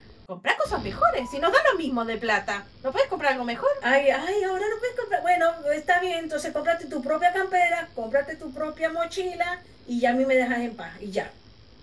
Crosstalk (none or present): none